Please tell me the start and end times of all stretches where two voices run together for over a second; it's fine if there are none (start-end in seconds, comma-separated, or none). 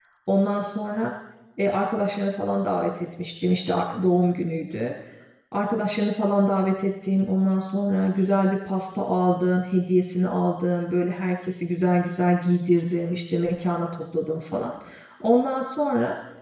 none